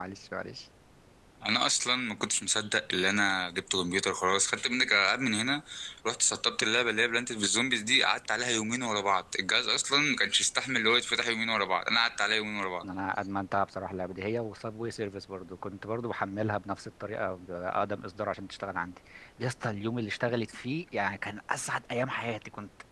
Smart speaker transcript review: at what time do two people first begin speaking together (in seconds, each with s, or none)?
none